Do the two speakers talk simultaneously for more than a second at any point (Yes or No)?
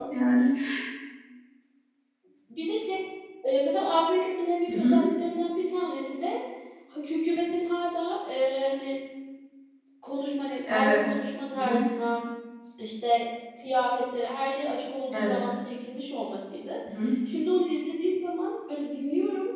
No